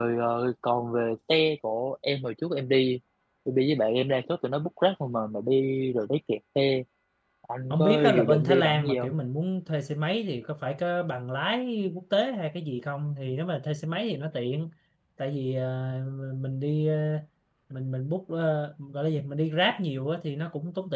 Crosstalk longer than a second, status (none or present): present